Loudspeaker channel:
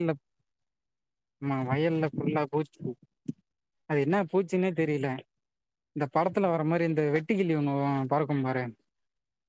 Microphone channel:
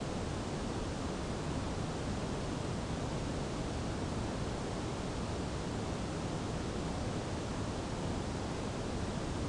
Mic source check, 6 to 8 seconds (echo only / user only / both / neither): neither